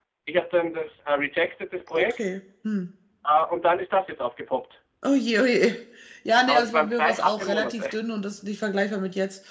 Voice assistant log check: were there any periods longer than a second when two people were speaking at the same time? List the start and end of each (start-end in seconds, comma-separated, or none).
6.4-8.0